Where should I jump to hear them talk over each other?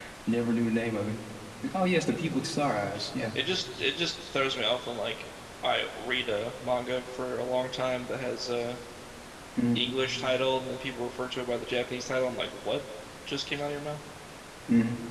none

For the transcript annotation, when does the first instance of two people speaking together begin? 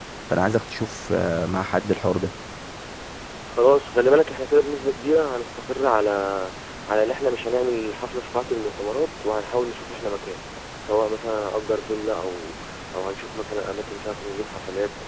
none

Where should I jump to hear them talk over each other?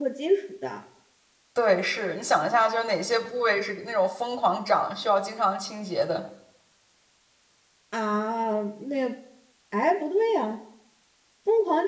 none

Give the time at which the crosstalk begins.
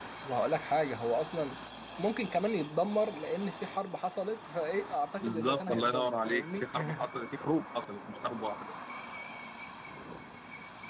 5.2 s

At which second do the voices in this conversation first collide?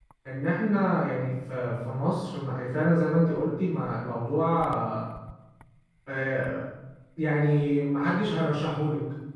none

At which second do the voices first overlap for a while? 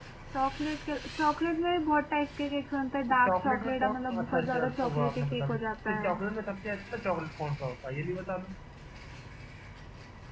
3.1 s

